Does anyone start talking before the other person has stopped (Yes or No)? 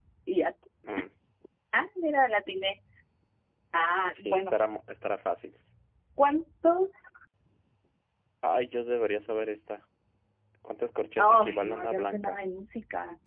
Yes